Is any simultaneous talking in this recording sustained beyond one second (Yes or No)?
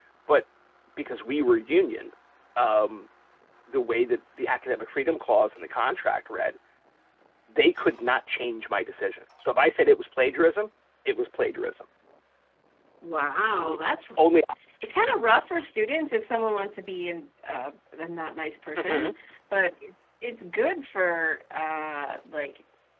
No